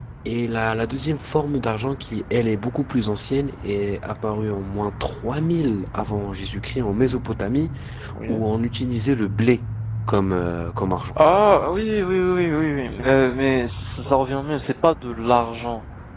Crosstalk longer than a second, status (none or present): none